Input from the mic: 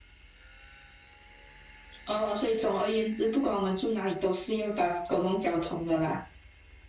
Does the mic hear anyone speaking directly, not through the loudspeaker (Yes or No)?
No